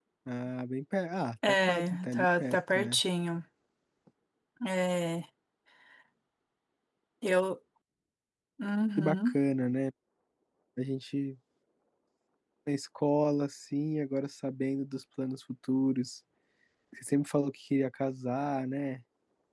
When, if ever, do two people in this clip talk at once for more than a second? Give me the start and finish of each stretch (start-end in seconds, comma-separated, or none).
1.5-3.0